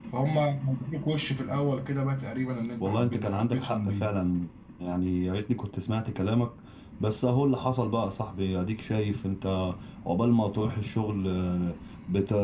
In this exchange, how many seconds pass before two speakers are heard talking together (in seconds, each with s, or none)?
2.8 s